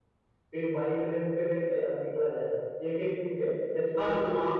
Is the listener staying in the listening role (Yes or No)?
No